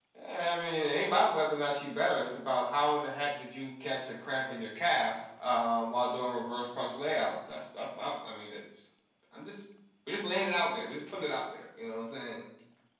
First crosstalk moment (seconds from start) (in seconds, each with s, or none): none